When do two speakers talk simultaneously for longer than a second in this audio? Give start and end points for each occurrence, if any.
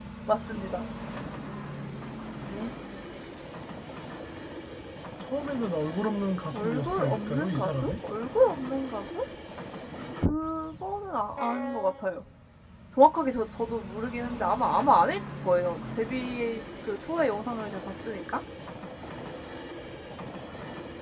6.5-8.0

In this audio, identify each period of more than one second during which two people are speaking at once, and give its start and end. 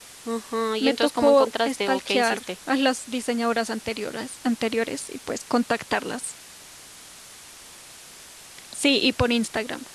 0.8-2.4

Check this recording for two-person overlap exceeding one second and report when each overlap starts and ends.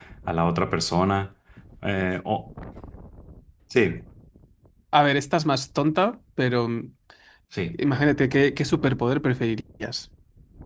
none

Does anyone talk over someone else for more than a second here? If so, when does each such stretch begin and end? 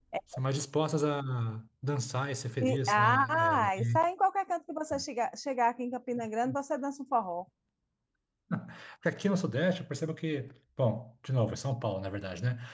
2.6-4.0

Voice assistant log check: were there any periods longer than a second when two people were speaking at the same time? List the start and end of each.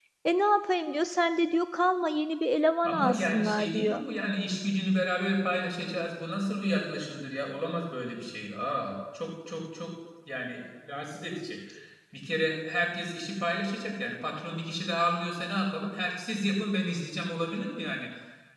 2.8-4.0

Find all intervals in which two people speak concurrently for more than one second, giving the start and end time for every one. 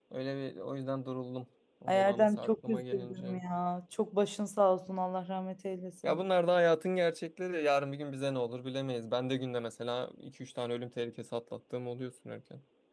1.9-3.4

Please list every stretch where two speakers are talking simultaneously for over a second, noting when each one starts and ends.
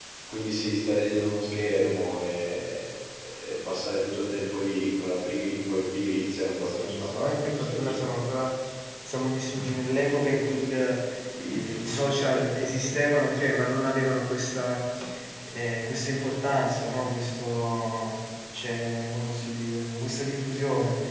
6.6-8.1

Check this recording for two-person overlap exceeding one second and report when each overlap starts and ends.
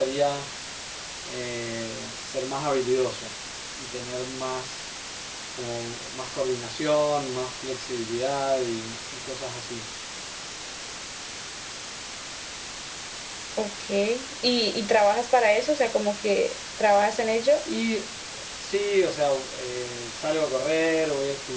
none

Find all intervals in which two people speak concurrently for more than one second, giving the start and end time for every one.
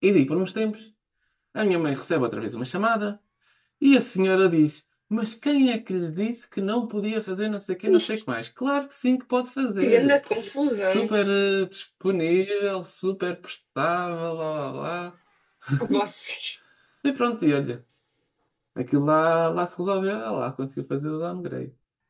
none

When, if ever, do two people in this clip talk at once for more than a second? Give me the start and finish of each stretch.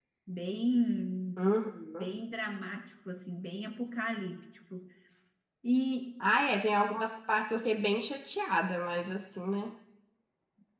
none

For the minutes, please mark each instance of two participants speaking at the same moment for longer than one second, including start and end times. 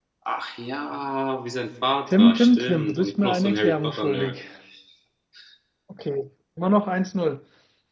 2.2-4.3

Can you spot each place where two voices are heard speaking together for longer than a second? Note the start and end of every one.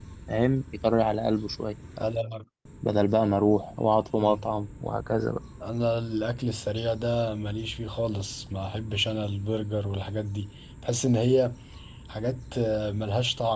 none

